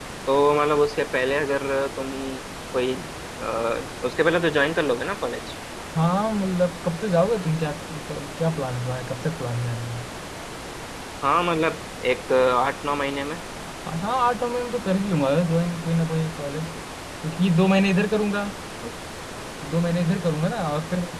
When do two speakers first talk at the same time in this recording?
none

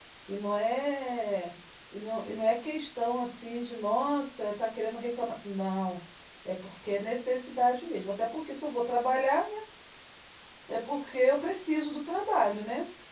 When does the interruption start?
none

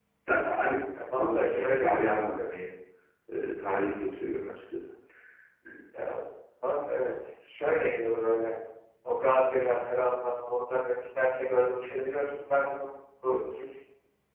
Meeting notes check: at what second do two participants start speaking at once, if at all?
1.2 s

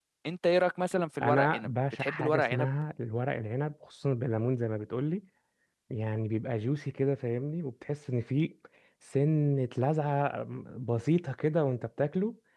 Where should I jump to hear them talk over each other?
1.2 s

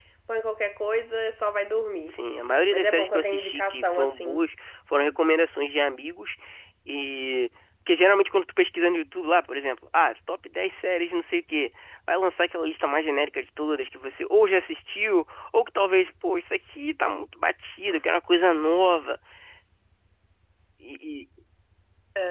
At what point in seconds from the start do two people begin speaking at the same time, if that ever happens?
2.7 s

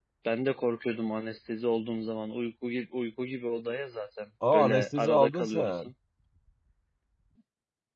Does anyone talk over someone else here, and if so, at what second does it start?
4.4 s

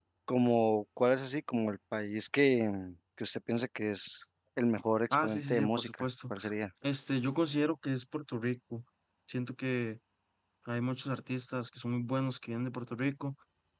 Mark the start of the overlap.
5.1 s

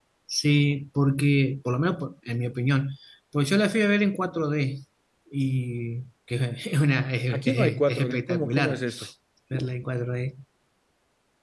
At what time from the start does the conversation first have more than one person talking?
7.3 s

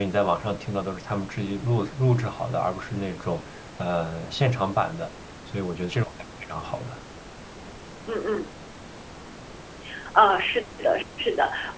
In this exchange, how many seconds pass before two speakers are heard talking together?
none

